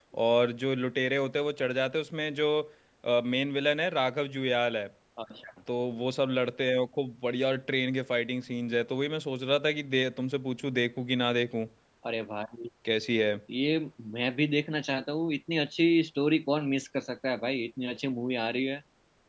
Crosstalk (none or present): none